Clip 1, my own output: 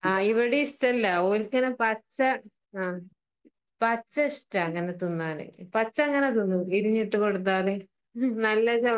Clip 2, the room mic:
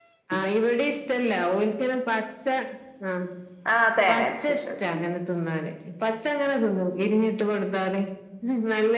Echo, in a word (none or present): present